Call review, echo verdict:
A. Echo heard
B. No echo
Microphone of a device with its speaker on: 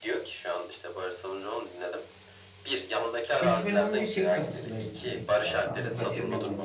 A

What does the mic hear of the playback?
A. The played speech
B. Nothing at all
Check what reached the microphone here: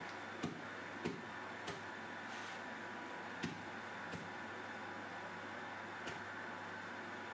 B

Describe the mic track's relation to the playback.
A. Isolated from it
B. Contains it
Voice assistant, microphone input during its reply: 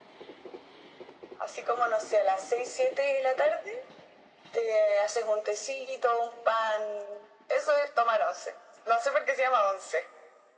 B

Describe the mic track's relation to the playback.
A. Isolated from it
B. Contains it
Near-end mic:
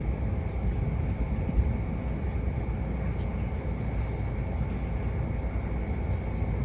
A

